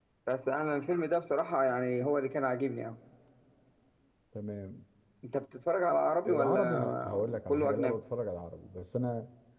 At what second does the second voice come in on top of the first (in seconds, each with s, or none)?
6.3 s